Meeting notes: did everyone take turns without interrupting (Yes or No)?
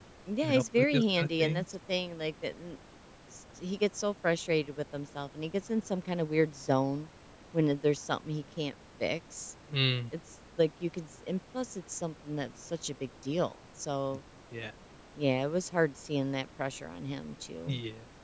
No